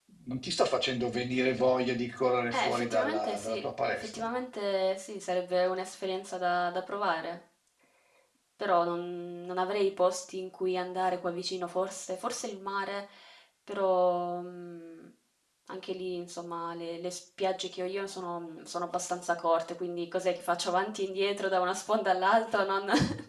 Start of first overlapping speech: 2.5 s

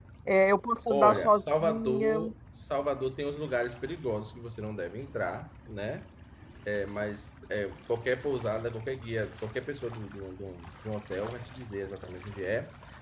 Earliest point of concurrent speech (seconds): 0.9 s

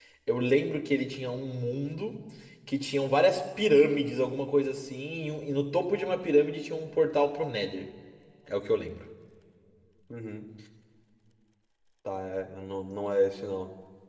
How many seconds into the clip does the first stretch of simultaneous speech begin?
none

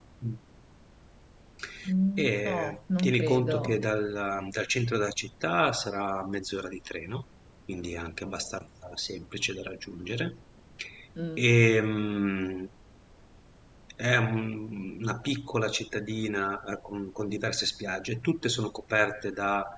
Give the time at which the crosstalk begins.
2.2 s

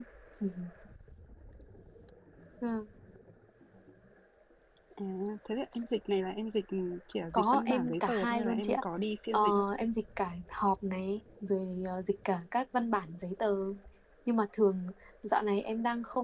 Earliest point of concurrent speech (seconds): 7.3 s

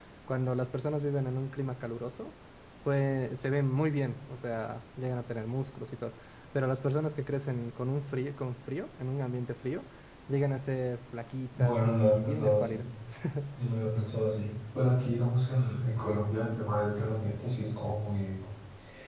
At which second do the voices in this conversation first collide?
11.6 s

